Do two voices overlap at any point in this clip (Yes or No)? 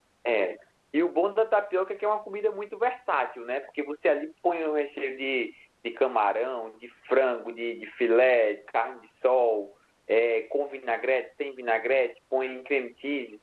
No